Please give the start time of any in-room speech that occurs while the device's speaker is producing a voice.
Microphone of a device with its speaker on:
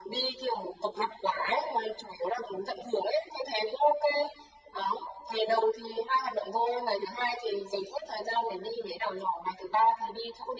none

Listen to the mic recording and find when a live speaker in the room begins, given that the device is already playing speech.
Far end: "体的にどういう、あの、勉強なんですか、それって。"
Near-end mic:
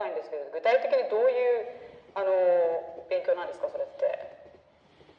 none

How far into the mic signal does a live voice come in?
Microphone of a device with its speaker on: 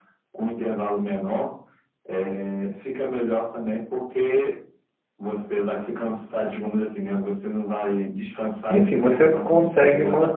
8.7 s

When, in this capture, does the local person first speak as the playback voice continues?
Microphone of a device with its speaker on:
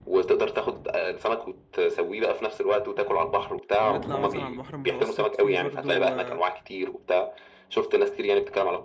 3.8 s

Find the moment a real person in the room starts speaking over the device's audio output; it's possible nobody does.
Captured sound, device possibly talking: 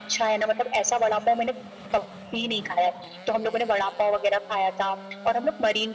none

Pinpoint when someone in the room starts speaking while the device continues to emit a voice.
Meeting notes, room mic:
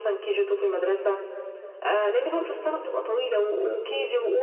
none

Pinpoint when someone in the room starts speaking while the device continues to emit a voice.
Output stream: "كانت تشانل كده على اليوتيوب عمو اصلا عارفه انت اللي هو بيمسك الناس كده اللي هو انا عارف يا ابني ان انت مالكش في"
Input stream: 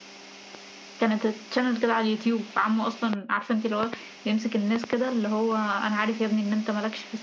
none

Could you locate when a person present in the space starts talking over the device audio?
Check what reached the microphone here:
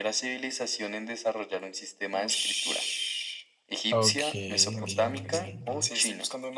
3.9 s

